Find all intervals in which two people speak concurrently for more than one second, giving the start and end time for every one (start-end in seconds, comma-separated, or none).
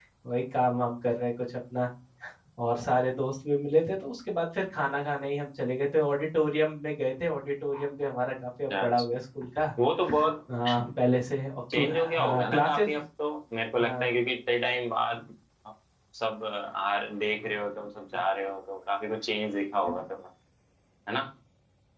11.7-13.0